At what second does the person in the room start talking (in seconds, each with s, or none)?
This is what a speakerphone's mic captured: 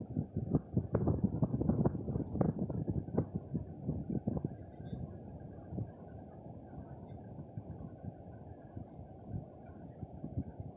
none